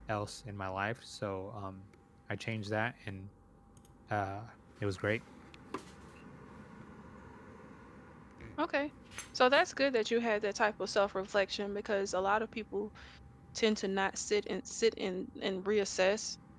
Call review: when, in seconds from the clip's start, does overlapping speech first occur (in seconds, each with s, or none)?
none